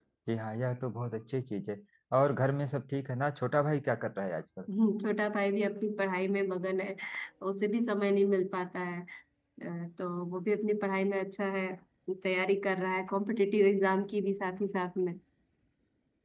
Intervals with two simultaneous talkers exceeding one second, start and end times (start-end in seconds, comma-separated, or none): none